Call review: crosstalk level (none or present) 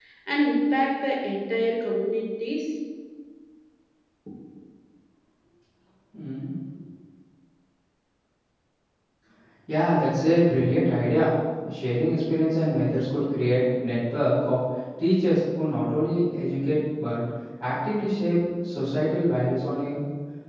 none